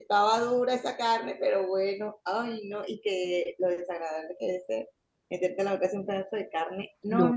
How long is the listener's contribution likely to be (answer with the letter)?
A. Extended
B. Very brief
B